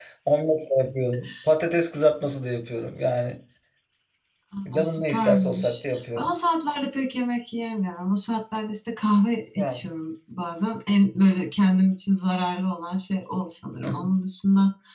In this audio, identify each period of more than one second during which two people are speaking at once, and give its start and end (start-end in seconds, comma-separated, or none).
4.7-6.3